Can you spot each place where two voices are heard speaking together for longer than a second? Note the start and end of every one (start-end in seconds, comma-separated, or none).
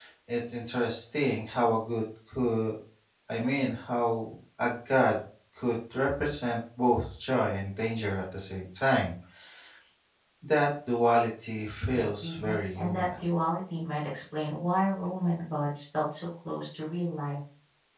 11.9-13.2